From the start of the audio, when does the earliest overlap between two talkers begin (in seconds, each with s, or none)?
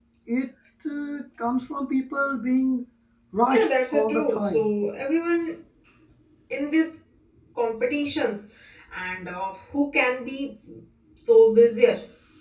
3.5 s